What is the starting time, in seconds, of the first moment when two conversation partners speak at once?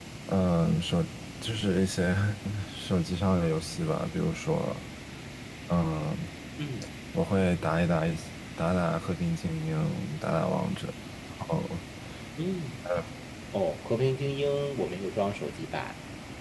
none

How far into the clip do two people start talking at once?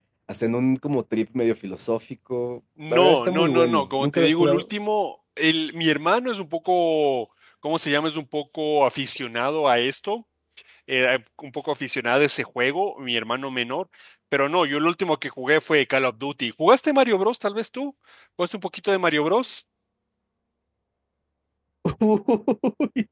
2.8 s

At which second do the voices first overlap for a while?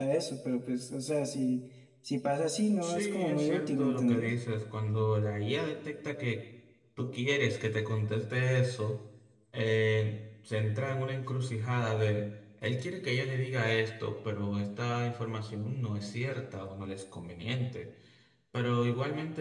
2.8 s

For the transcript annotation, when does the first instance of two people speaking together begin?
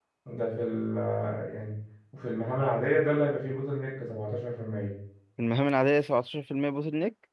none

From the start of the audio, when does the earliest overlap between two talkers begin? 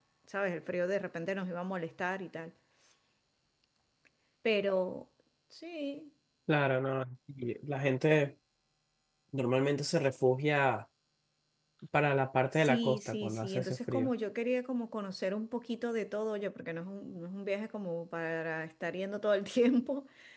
12.5 s

